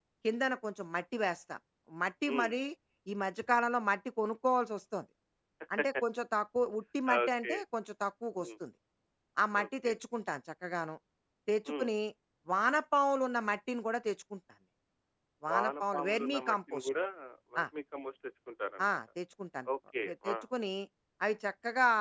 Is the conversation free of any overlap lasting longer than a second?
No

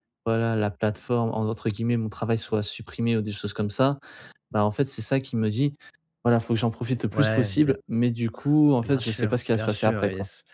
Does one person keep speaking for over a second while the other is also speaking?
Yes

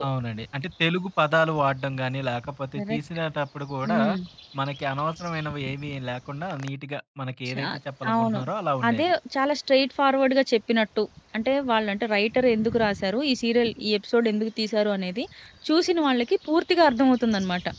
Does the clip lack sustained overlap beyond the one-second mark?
Yes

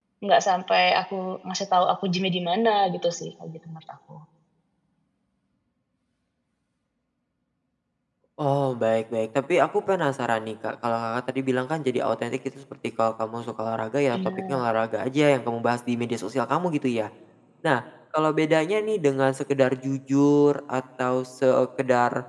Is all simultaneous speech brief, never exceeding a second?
Yes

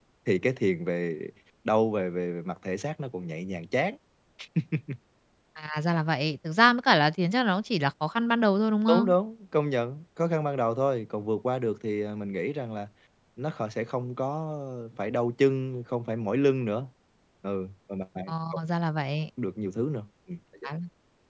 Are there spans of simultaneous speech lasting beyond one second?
No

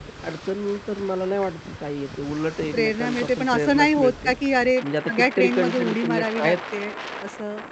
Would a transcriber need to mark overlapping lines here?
Yes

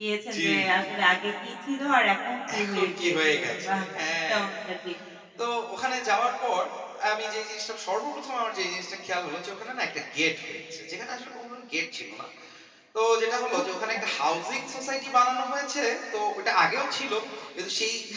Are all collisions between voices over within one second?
No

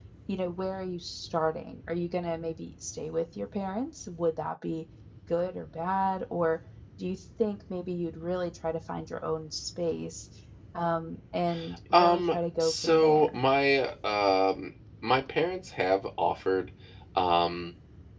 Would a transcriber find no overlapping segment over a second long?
No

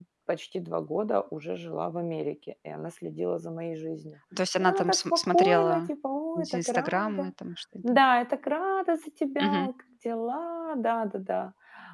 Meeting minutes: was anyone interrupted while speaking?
Yes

